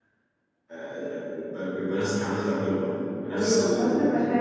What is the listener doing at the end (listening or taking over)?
taking over